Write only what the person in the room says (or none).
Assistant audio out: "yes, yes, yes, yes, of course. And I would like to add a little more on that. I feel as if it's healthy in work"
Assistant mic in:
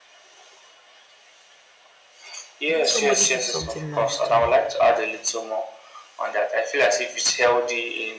if somebody did something nice to me.